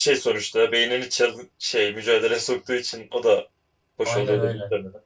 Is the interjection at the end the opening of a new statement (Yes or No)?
Yes